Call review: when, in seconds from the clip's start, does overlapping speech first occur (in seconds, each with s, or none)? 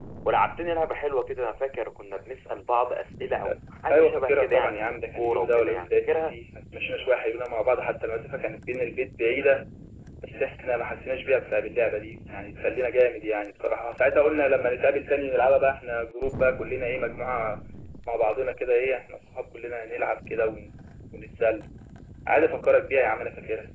3.9 s